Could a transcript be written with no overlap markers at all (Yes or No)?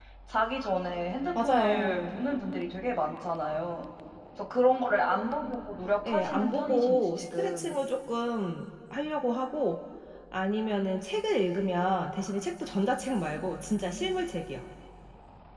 No